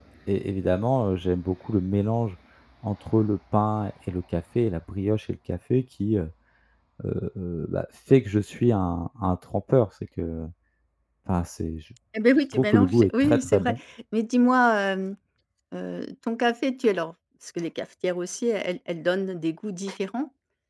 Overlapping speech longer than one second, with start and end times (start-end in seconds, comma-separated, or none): 12.5-13.8